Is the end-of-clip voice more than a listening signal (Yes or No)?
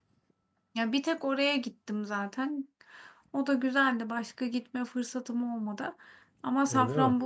No